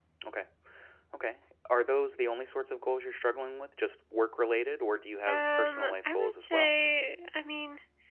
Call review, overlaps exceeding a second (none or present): present